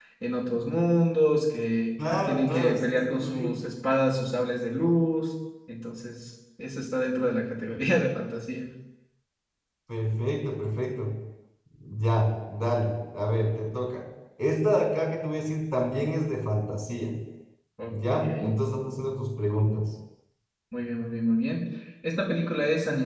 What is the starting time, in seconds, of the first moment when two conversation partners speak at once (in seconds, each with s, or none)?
2.3 s